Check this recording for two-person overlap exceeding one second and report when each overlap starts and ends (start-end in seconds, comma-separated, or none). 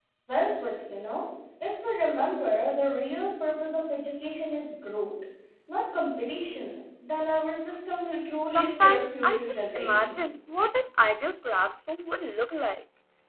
8.4-10.2